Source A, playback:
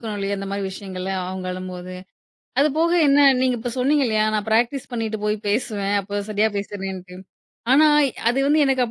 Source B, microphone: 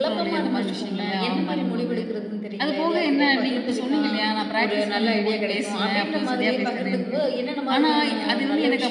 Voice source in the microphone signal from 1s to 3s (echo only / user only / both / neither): both